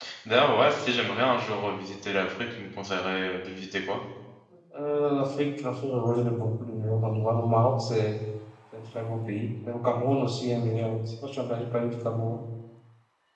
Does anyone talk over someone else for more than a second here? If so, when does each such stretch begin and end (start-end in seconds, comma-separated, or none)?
none